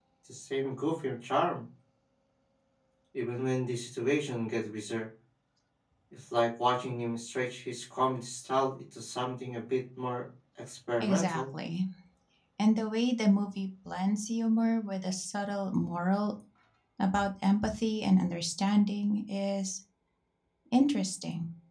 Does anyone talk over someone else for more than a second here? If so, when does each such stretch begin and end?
none

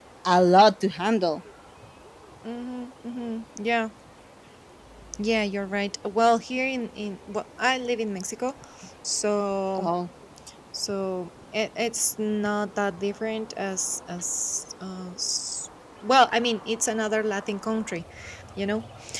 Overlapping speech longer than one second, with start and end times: none

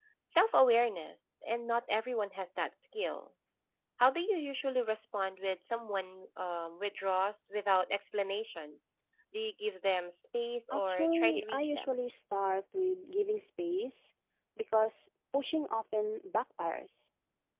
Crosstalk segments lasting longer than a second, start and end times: 10.7-11.9

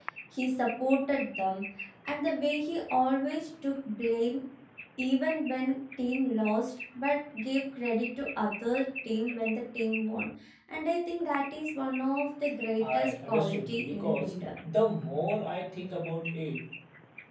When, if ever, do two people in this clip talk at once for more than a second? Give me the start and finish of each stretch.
12.8-14.4

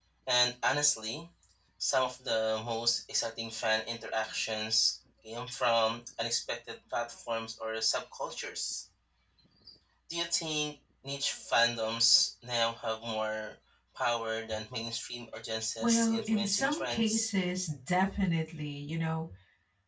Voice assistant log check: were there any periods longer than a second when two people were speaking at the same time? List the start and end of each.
15.8-17.3

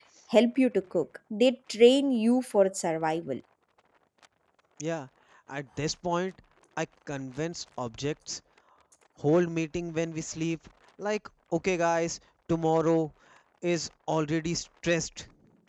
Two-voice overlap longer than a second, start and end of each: none

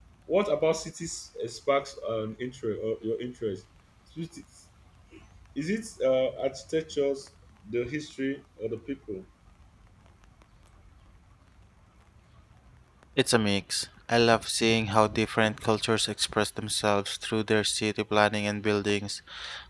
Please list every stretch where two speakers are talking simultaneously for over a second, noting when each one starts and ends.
none

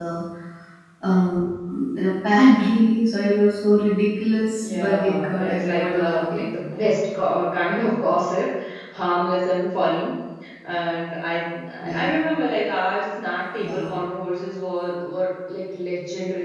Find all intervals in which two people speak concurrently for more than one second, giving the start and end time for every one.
4.6-6.5

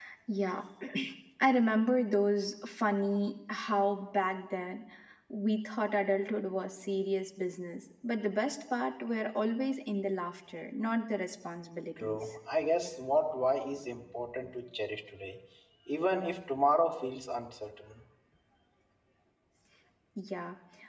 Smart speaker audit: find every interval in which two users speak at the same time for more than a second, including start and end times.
none

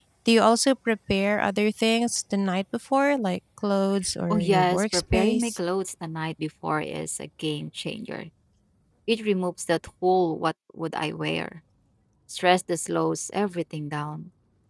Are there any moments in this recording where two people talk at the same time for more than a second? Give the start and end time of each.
4.3-5.6

